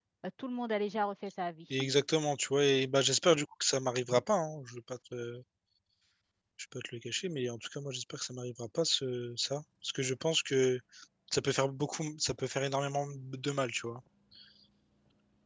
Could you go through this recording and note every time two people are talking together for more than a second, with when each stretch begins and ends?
none

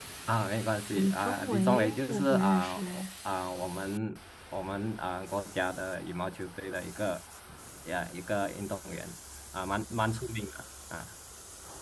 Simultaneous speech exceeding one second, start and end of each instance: 0.9-3.0

